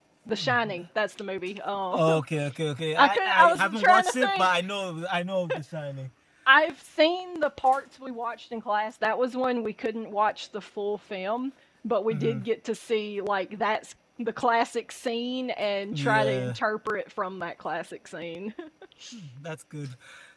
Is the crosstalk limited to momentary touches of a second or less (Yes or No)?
No